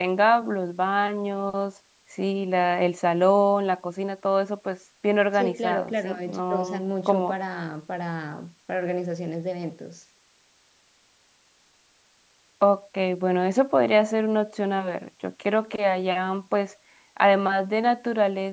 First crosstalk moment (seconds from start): 5.3 s

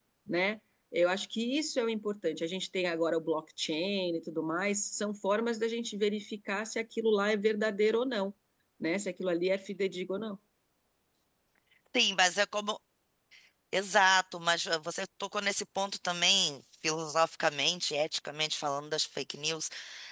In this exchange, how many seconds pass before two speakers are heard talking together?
none

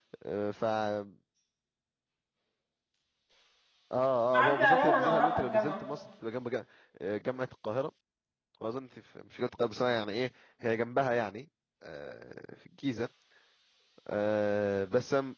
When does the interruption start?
4.3 s

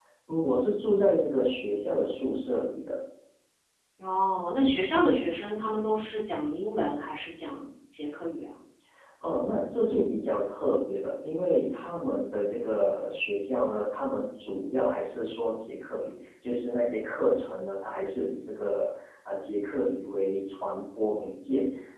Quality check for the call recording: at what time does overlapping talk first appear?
none

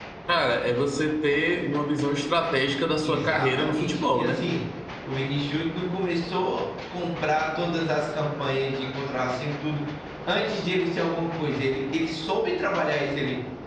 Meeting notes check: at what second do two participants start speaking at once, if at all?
3.0 s

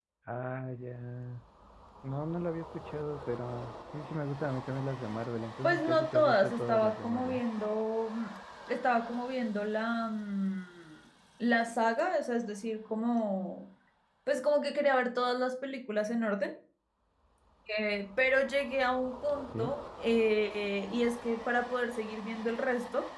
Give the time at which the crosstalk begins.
5.6 s

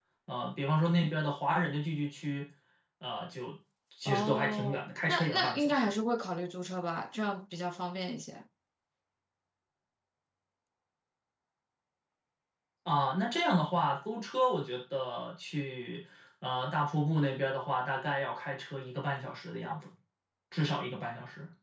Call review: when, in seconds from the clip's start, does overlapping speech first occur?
4.0 s

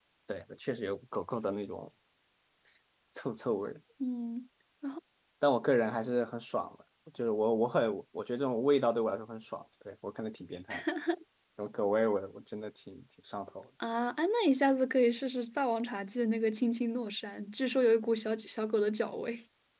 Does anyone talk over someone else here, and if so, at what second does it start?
none

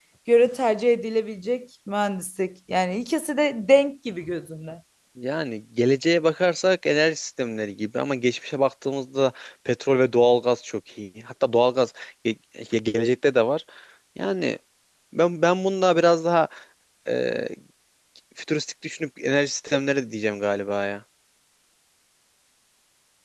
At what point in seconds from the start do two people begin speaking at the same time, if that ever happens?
none

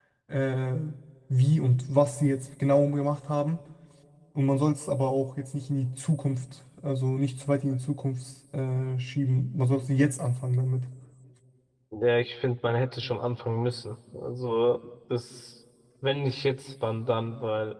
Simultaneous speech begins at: none

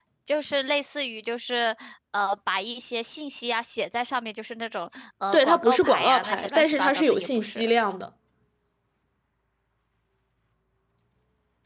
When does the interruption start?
5.3 s

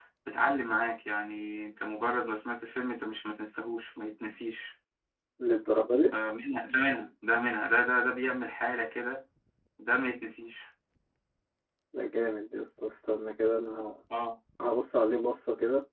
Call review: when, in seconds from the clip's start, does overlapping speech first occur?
none

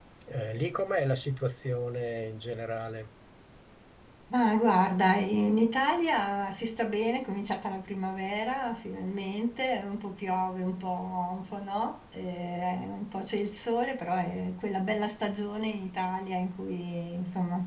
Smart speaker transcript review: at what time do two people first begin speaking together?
none

